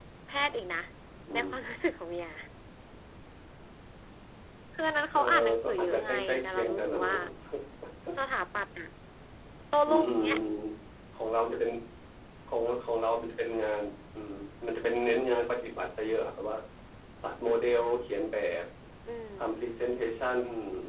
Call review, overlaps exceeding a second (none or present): present